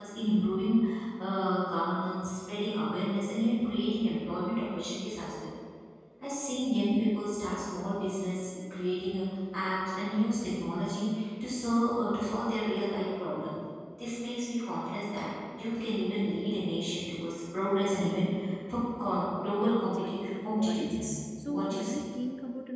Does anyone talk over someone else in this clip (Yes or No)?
Yes